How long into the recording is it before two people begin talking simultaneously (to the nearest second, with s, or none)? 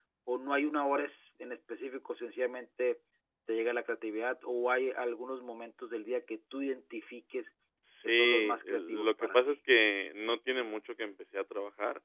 8 s